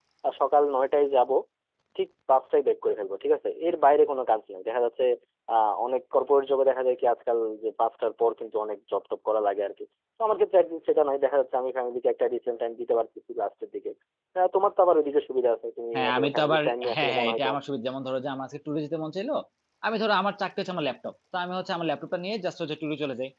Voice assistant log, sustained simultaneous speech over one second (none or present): present